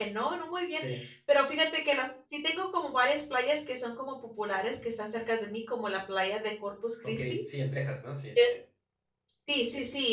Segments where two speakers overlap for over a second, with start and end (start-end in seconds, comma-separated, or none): none